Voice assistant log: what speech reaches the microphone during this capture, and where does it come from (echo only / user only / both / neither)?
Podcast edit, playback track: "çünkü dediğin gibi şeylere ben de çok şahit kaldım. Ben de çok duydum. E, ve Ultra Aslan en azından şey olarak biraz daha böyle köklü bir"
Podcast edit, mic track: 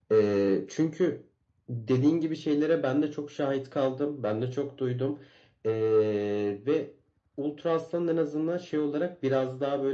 echo only